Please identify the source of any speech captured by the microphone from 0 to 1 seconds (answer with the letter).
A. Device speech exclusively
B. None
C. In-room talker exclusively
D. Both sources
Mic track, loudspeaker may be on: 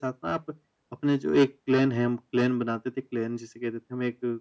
A